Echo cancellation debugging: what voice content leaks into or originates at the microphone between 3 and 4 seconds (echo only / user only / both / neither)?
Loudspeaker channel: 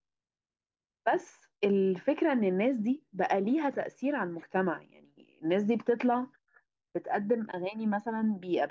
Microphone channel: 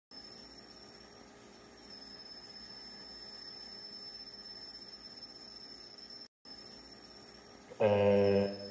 neither